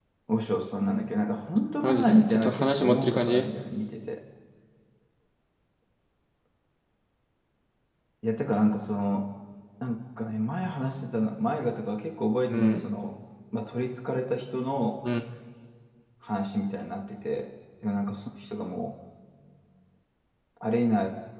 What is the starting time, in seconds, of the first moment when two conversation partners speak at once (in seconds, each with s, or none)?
1.8 s